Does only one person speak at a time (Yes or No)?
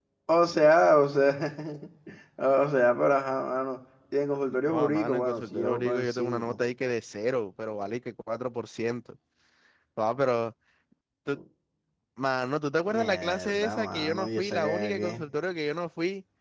No